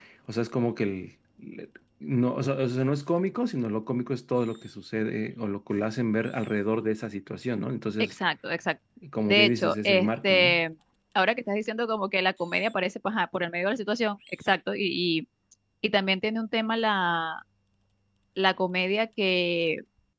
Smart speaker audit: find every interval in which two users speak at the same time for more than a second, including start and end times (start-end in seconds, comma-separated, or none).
9.3-10.6